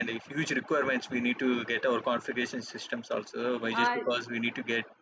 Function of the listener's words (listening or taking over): listening